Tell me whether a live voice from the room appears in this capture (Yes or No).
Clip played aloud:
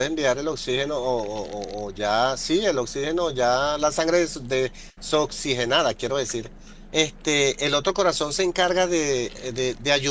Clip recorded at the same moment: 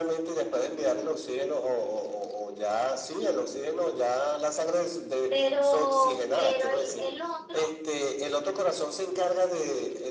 Yes